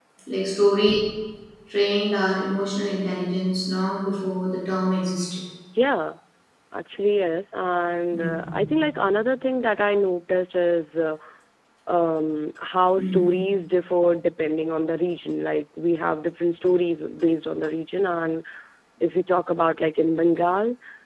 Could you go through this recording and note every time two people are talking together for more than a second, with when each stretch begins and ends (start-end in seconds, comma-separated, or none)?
none